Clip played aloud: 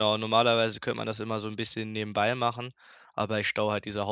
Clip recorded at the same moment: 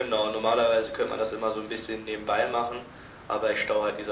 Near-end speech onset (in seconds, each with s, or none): none